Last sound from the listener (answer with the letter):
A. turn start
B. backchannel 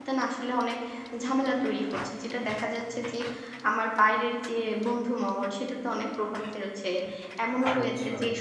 B